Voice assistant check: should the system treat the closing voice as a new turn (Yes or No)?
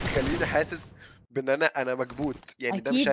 Yes